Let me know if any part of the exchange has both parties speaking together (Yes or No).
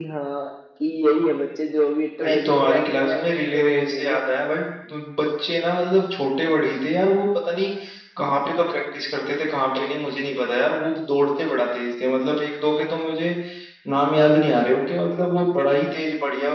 Yes